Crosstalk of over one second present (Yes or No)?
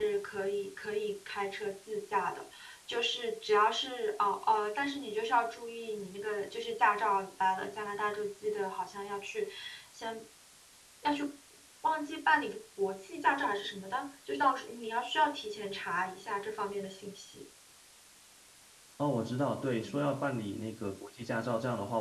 No